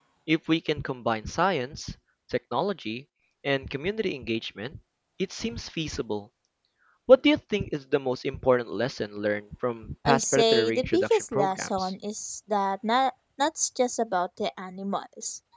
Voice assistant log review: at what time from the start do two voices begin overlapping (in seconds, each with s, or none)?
10.1 s